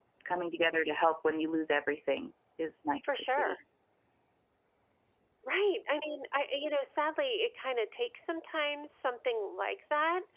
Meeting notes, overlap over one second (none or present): none